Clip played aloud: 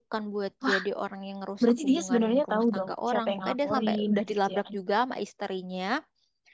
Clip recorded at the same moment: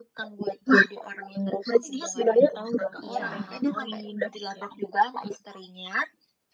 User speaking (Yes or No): Yes